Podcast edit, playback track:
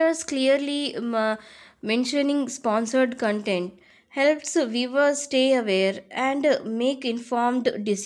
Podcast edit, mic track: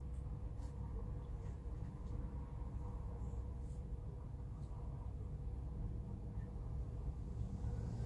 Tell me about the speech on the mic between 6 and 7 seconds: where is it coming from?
neither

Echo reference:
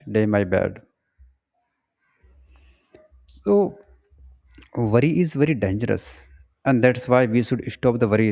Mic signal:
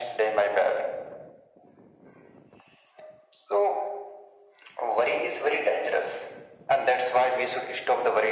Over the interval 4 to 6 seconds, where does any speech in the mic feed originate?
echo only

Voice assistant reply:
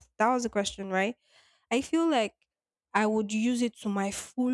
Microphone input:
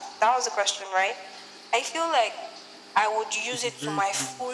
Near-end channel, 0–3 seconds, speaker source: echo only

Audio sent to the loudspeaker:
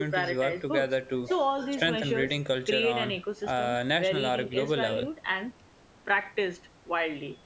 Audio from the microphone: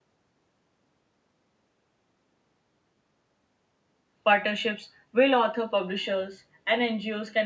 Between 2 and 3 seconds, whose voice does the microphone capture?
neither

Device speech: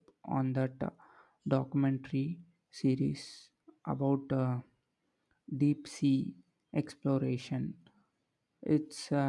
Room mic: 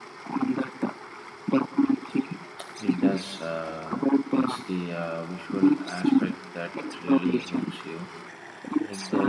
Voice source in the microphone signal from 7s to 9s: both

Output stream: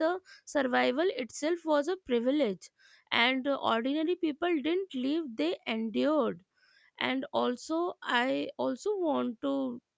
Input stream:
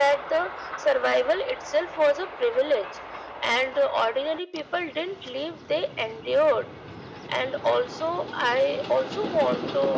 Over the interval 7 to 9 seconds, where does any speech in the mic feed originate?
echo only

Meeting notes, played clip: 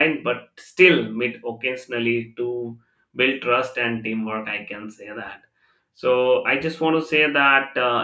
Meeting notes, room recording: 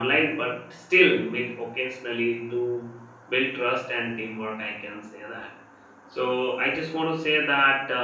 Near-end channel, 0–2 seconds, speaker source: echo only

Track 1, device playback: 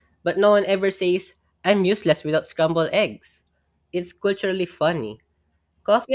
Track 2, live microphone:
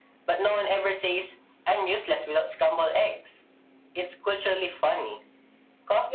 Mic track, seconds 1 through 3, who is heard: echo only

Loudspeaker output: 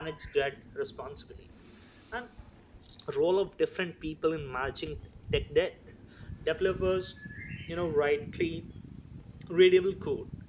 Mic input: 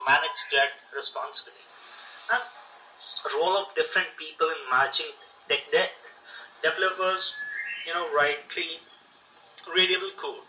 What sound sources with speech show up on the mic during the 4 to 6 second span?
echo only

